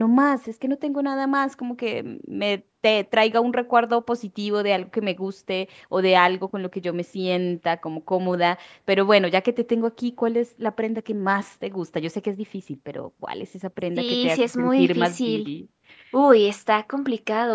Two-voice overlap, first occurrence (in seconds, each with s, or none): 14.0 s